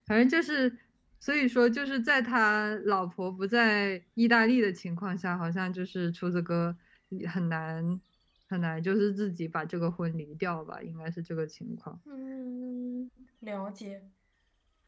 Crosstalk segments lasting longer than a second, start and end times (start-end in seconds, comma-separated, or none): none